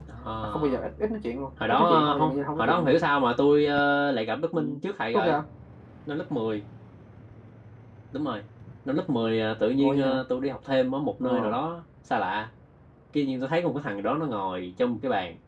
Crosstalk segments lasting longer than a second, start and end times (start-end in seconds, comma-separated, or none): 1.7-3.0